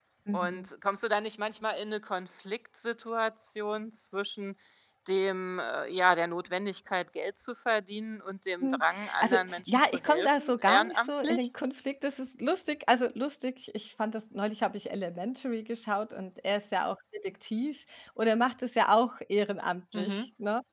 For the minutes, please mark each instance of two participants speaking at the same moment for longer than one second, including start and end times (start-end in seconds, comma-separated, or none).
8.6-11.5